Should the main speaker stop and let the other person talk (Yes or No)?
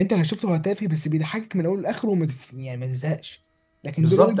Yes